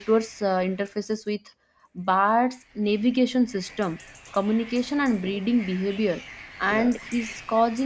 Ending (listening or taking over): listening